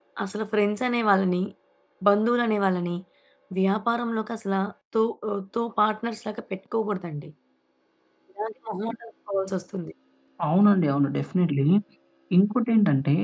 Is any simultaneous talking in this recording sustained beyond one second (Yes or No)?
No